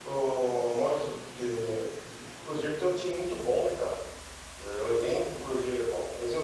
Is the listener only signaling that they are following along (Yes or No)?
Yes